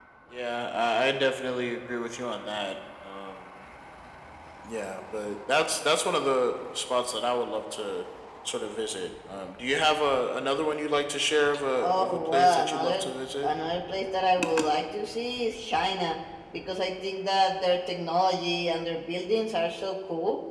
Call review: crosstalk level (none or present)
present